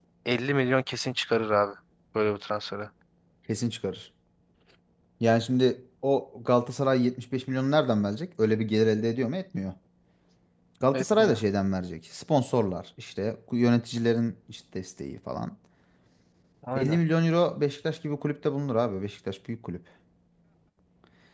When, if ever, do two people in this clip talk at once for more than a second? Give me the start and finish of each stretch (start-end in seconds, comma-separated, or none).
none